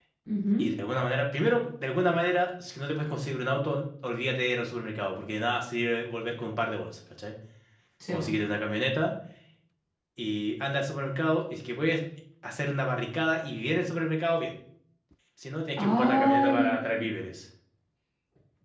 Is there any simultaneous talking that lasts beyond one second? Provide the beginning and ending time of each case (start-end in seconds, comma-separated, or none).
15.8-17.1